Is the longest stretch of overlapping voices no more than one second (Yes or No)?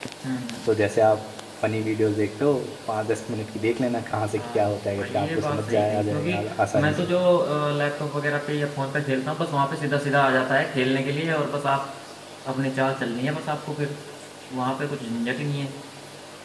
No